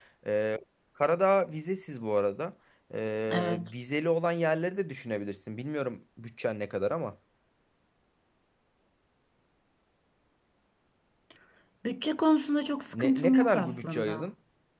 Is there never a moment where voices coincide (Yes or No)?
No